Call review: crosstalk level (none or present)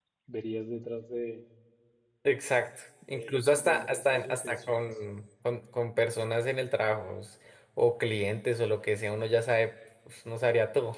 present